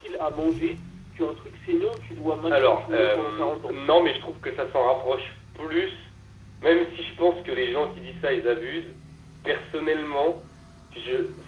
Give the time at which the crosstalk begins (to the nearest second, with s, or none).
3 s